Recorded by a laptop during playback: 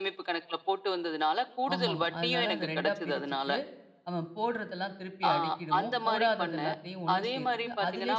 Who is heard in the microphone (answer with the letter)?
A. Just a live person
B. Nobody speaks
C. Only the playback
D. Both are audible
D